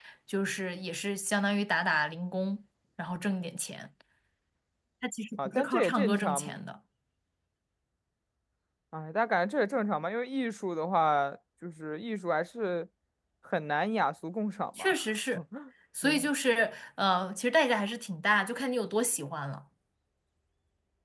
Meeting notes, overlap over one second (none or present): present